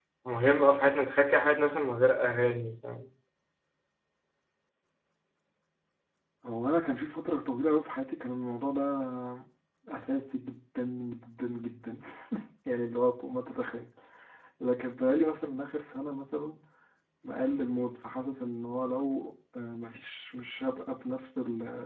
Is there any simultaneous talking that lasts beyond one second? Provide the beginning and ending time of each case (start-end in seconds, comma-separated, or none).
none